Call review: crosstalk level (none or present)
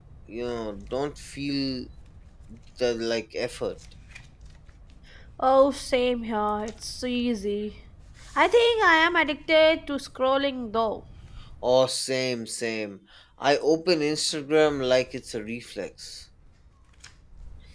none